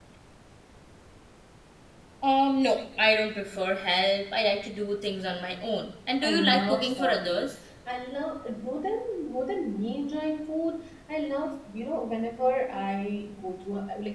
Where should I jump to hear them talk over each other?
6 s

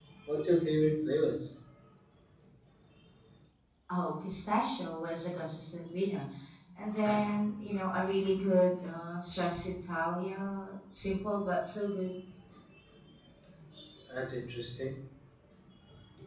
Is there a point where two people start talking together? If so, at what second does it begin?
none

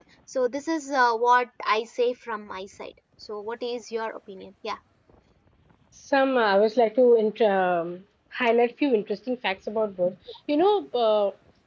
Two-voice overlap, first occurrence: none

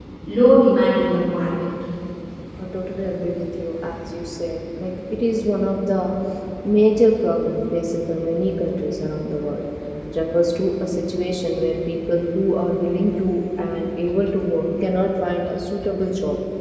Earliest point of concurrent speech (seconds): none

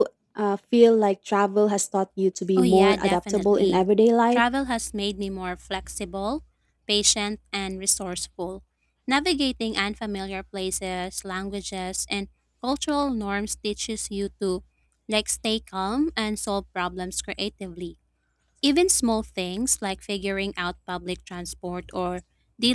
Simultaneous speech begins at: 3 s

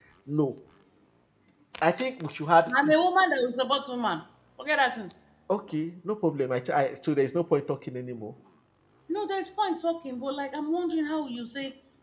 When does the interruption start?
none

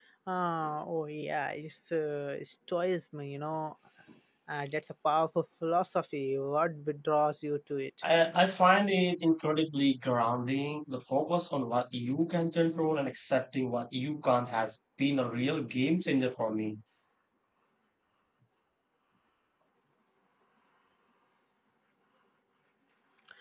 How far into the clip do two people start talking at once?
none

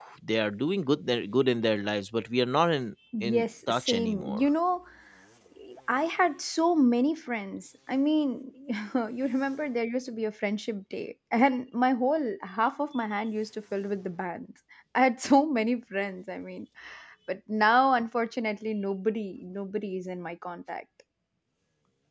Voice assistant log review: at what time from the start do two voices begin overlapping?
3 s

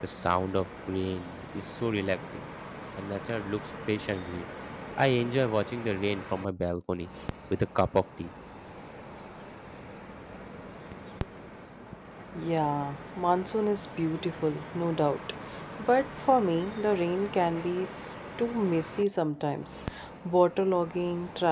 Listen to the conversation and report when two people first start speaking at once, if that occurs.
none

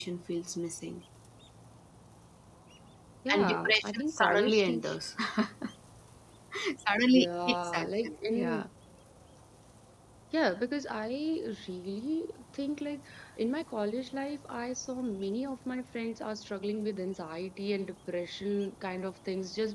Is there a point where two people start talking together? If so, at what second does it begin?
3 s

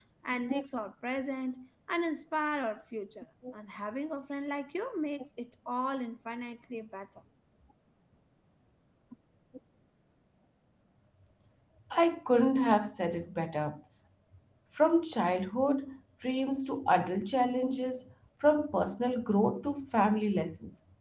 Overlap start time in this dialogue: none

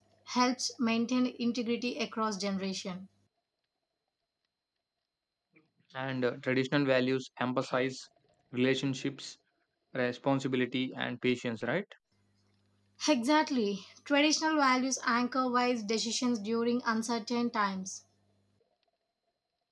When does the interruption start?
none

